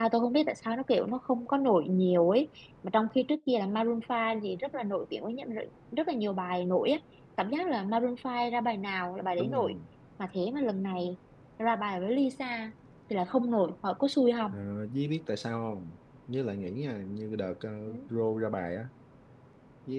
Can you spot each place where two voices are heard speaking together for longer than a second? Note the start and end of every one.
none

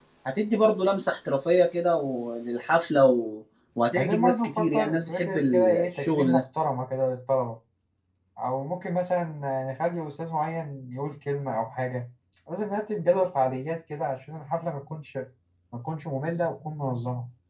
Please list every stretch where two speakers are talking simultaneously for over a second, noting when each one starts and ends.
4.0-6.4

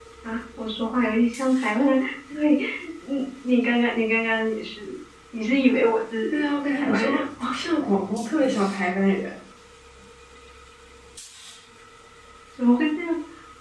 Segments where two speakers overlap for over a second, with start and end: 6.3-7.6

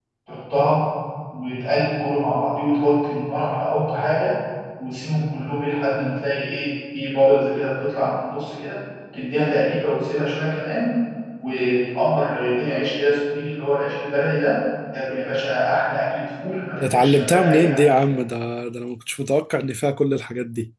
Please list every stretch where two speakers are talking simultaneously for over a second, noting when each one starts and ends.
16.8-18.0

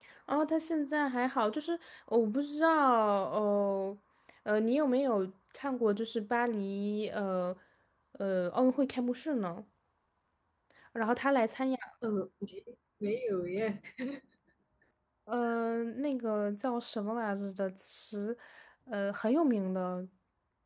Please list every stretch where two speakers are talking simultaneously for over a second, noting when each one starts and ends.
none

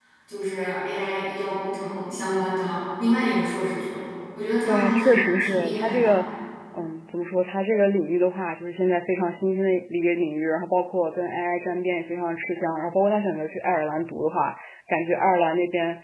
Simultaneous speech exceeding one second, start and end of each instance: 4.7-6.1

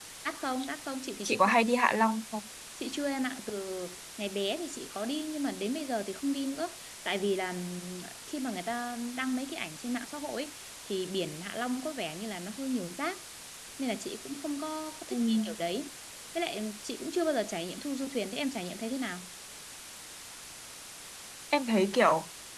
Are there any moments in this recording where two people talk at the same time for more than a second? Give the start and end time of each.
none

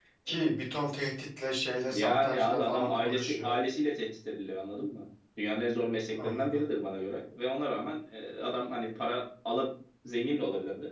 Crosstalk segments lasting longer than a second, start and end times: 1.9-3.6

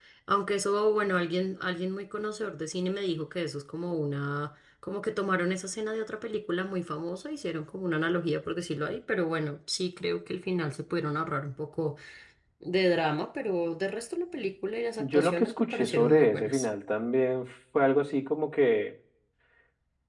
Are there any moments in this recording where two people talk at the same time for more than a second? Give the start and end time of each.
15.0-16.7

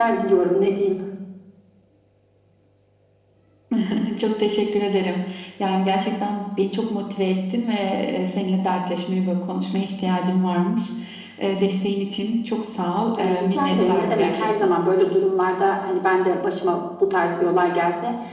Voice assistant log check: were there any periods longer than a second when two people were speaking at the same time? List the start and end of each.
13.2-14.7

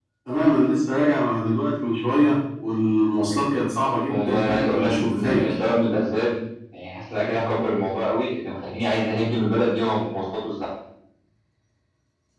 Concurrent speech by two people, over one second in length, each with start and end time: 4.1-5.5

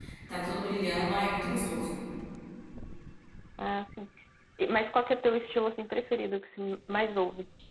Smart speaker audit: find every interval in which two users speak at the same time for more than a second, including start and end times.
none

